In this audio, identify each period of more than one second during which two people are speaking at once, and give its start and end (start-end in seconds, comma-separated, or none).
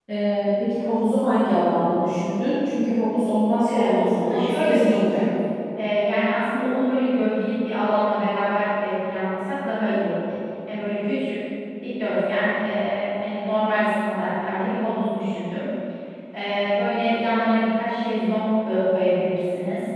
3.6-5.2